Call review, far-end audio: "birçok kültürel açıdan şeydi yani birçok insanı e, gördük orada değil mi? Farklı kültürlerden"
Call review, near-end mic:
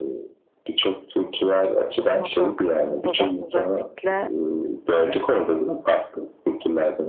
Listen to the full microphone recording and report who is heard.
both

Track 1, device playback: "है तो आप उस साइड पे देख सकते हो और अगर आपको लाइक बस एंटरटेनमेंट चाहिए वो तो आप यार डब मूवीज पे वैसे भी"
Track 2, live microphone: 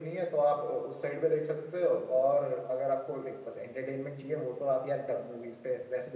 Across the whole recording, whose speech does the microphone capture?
echo only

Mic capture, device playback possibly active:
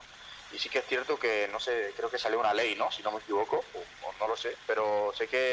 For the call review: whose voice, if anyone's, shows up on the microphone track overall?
echo only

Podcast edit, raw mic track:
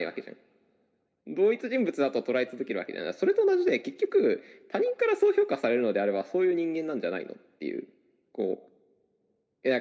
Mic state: echo only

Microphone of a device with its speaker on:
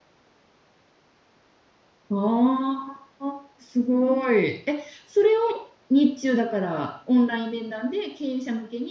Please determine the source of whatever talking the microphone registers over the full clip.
user only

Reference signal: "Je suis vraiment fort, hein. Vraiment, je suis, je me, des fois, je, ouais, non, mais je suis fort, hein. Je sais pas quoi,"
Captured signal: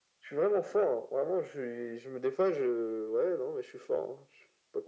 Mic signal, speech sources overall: echo only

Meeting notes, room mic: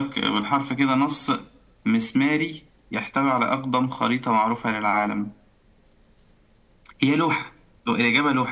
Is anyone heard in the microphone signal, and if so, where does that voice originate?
echo only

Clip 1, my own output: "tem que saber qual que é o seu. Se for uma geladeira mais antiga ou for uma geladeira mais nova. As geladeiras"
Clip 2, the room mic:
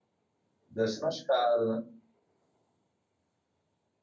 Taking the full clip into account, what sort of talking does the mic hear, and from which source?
user only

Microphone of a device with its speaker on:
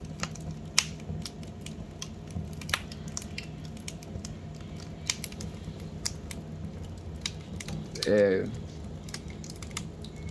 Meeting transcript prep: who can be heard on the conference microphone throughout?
user only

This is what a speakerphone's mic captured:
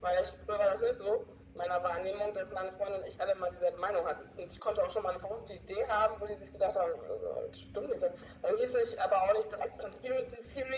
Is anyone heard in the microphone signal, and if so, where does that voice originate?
echo only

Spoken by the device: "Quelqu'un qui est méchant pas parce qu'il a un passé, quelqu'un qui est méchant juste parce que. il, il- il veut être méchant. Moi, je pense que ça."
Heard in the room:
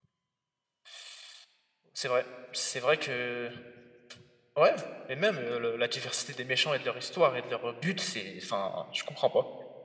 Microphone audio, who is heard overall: user only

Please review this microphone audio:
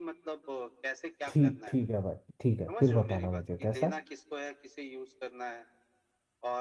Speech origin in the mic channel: both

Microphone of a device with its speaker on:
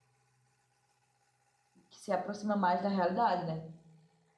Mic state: user only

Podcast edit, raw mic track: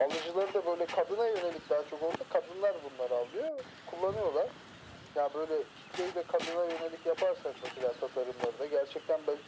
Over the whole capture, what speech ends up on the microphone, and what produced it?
echo only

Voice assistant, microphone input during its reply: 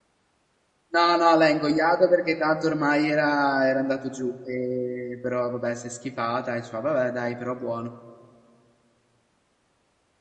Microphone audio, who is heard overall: user only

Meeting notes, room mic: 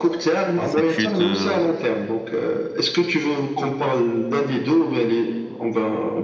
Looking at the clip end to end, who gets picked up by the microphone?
both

